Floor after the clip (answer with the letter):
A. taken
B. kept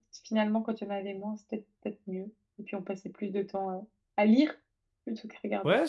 A